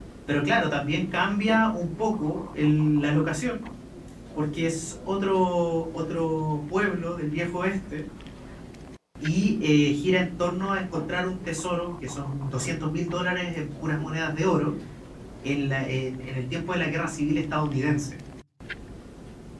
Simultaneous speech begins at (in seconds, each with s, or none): none